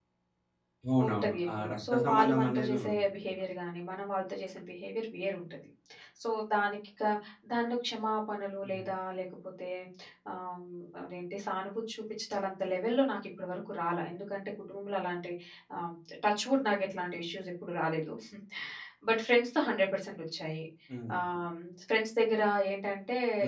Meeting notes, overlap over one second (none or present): present